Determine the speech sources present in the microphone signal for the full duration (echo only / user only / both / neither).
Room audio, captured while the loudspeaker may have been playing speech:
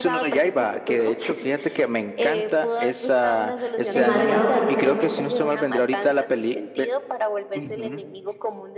both